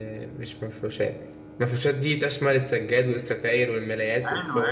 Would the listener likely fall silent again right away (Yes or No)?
No